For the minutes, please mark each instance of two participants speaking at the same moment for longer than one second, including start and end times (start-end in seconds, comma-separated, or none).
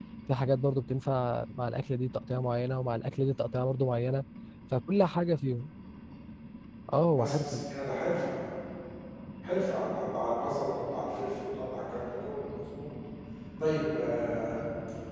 none